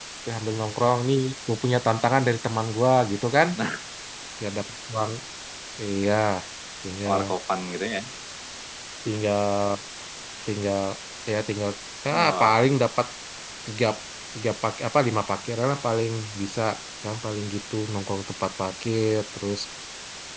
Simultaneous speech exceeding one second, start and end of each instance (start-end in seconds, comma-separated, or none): none